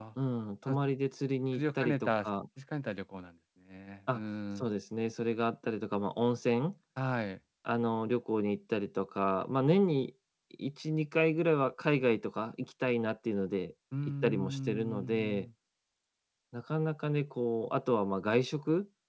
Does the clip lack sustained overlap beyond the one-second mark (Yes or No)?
No